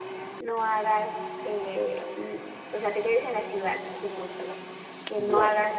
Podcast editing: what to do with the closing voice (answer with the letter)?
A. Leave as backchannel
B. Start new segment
A